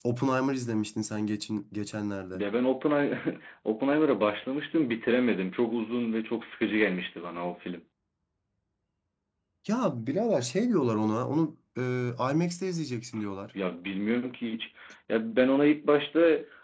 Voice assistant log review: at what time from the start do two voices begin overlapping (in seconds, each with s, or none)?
none